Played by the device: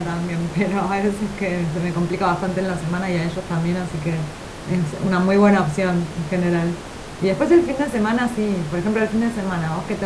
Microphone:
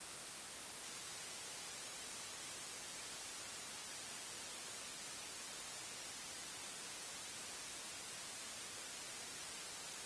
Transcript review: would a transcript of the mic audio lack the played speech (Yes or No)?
Yes